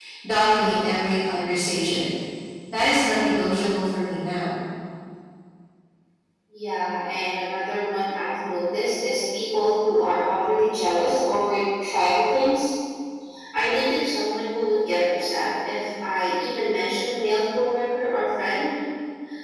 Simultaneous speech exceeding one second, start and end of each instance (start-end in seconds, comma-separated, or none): none